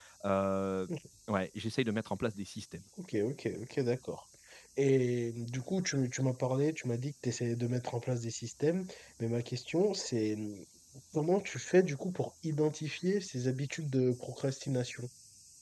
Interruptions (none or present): none